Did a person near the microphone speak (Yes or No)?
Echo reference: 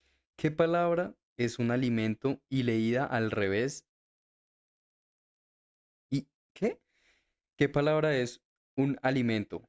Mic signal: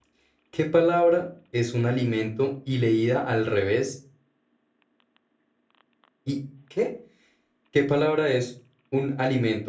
No